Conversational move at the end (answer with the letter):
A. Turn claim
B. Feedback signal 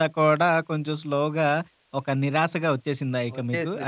A